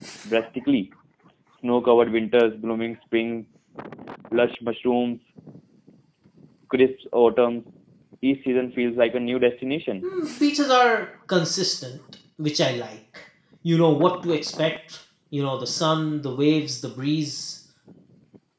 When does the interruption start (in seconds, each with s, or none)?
none